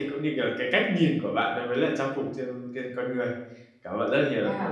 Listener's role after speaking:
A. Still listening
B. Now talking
B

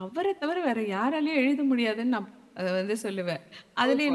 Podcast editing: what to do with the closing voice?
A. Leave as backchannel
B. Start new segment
B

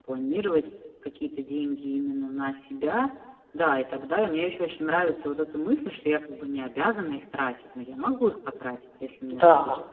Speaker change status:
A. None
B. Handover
B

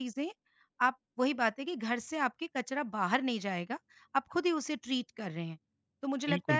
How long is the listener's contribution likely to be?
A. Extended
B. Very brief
B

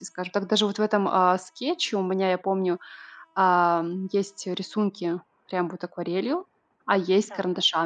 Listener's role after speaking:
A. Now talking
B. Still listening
B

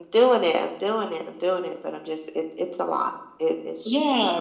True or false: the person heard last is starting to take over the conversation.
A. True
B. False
A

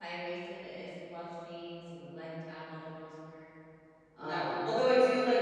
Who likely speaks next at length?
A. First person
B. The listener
B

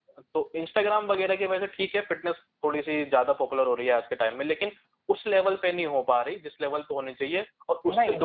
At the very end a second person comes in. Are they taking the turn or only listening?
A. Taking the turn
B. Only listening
A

